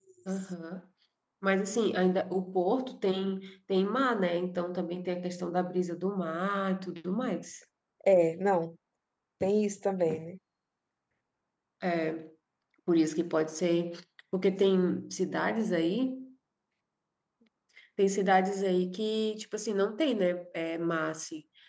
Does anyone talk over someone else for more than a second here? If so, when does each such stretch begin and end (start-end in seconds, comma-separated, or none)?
none